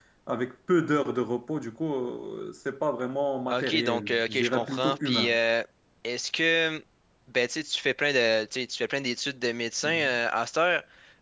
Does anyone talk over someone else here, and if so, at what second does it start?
3.5 s

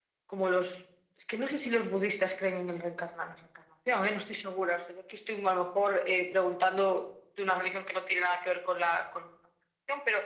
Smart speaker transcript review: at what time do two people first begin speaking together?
none

